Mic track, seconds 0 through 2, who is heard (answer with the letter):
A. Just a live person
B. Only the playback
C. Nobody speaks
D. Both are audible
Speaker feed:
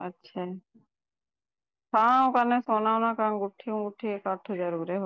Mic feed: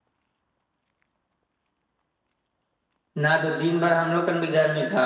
C